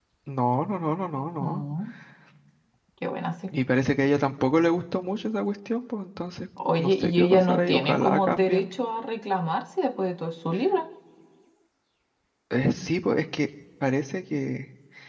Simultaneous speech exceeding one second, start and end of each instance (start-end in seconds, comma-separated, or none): 6.8-8.7